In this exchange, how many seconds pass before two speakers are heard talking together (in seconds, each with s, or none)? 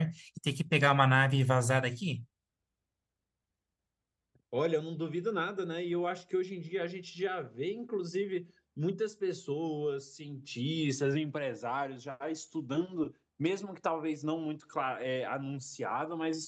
none